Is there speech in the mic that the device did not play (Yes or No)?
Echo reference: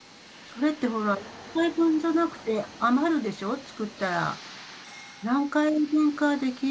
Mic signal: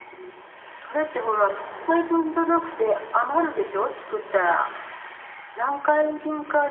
No